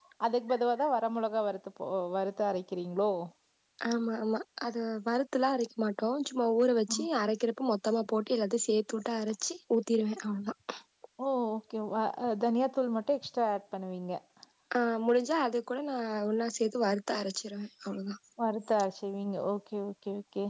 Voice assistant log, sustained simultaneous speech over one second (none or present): none